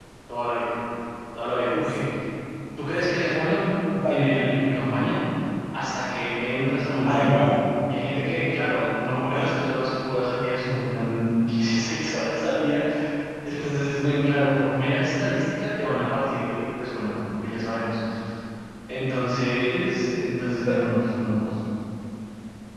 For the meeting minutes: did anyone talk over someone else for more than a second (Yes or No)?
No